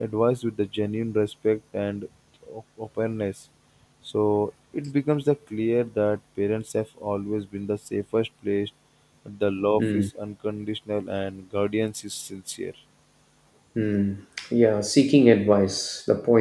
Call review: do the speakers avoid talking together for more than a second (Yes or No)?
Yes